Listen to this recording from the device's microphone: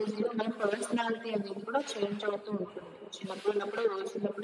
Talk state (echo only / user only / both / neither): echo only